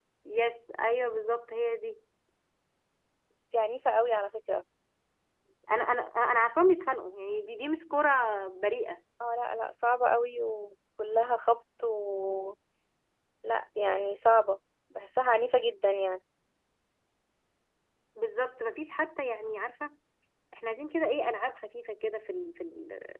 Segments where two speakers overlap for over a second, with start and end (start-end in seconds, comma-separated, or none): none